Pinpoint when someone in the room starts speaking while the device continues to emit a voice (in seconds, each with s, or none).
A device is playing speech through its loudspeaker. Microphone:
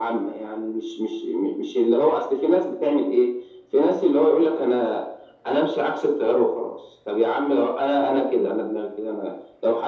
none